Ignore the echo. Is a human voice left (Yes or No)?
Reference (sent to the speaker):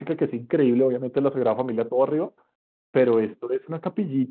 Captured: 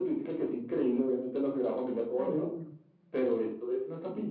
Yes